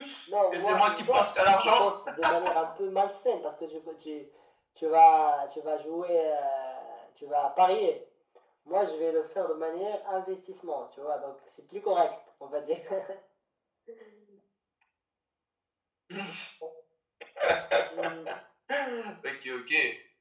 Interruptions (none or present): present